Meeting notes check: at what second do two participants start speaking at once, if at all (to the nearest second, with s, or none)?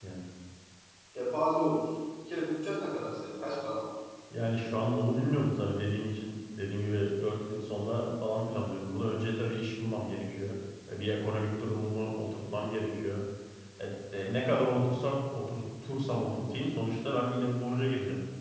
none